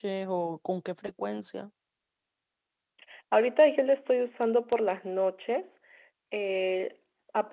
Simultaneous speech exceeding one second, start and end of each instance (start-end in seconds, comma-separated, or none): none